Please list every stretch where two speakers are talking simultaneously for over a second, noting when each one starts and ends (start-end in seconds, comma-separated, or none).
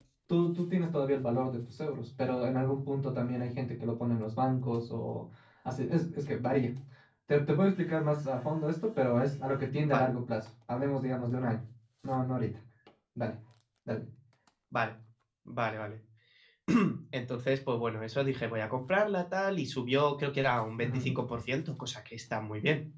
none